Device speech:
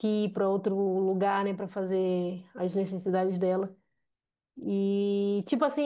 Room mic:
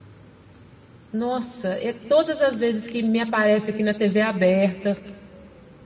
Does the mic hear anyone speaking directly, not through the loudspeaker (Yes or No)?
Yes